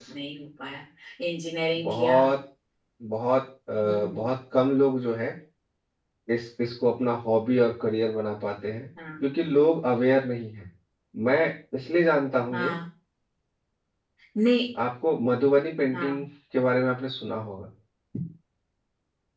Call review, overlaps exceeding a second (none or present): none